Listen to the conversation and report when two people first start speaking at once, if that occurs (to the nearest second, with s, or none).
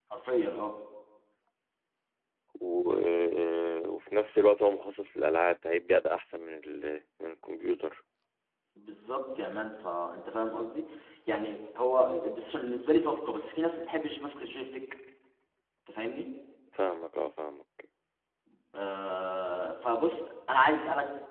none